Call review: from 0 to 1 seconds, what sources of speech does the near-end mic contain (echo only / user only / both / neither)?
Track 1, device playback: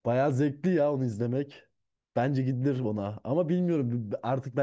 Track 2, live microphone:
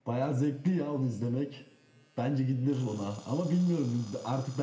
echo only